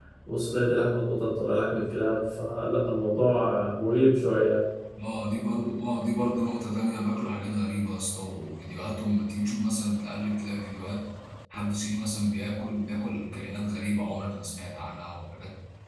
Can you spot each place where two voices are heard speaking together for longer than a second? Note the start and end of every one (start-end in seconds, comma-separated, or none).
none